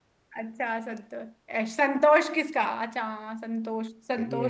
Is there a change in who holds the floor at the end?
No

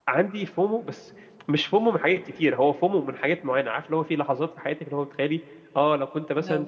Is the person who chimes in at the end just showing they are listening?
Yes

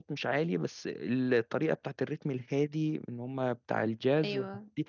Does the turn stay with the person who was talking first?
Yes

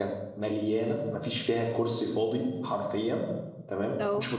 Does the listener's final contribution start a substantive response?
No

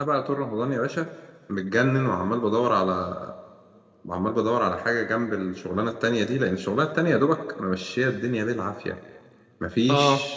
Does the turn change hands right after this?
No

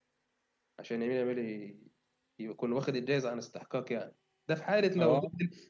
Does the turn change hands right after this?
No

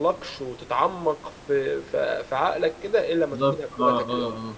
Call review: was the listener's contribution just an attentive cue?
No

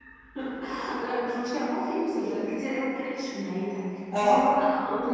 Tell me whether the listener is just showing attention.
Yes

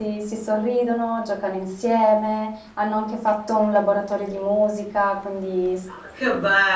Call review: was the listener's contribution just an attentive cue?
No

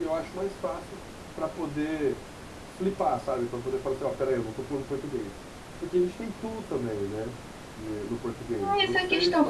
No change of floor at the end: No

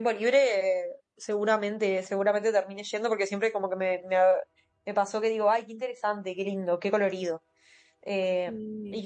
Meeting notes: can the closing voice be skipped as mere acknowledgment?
Yes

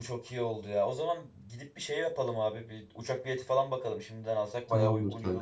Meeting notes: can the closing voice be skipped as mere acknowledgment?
No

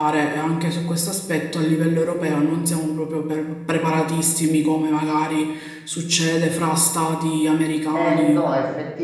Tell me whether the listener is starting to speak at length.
Yes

